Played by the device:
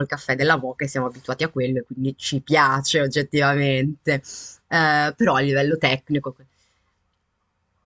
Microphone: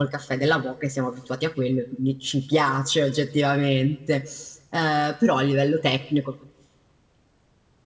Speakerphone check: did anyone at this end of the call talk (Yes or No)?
No